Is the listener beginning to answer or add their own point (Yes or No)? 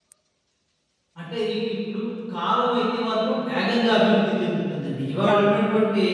No